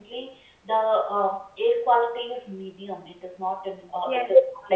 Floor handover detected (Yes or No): No